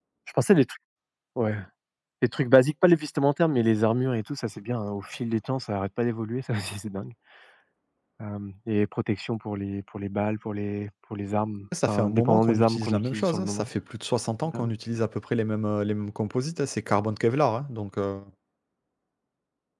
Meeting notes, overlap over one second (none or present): present